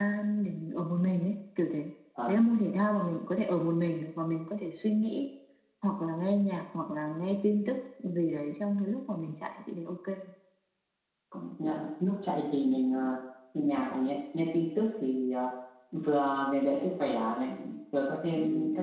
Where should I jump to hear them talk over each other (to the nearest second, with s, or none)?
none